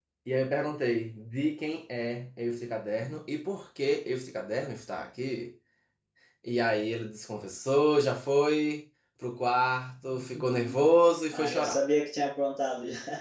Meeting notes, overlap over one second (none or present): none